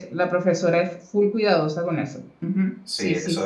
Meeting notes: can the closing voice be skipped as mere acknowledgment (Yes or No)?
No